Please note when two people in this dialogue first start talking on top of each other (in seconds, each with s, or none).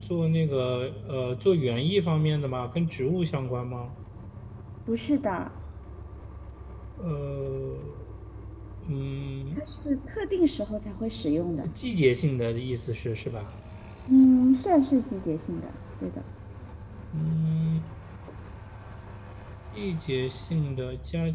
none